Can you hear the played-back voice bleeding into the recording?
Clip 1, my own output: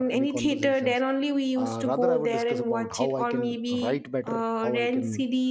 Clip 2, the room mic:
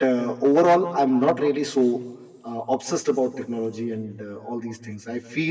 No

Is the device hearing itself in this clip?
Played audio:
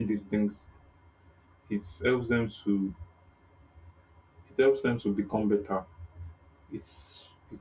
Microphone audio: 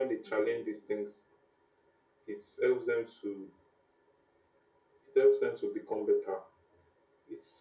Yes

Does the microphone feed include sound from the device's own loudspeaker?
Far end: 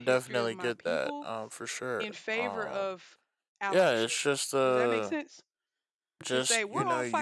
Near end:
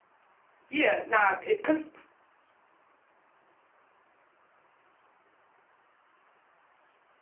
No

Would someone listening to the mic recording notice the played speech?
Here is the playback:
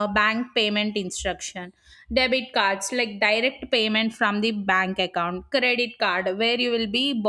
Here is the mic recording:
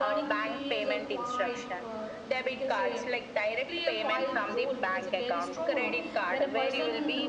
Yes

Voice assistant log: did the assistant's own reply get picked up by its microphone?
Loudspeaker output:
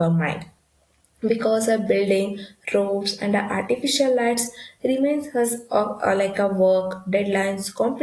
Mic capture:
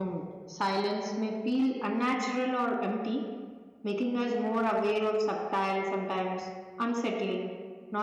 No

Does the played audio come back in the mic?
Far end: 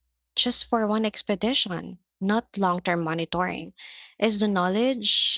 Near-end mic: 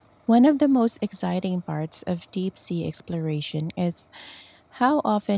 No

